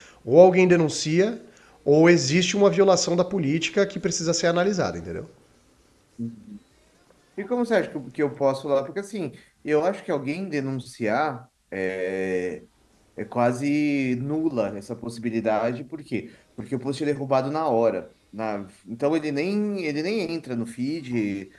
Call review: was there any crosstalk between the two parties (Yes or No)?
No